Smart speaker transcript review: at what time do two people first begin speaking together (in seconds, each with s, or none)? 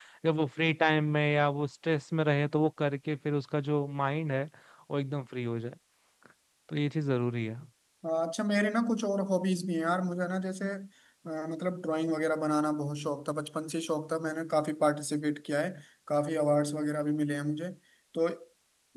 none